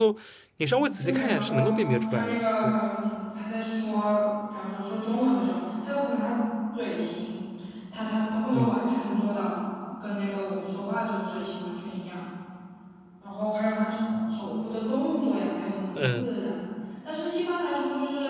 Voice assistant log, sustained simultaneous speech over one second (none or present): present